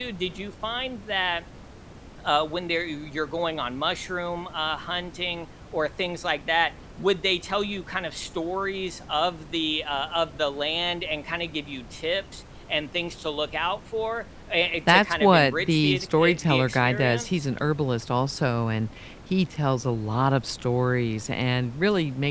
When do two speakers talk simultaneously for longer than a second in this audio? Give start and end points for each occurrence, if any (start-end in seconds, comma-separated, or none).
14.9-17.4